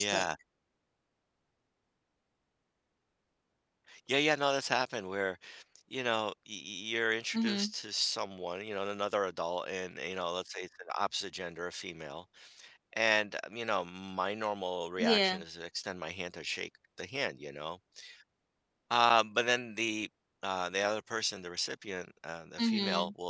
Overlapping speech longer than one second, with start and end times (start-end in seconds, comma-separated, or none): none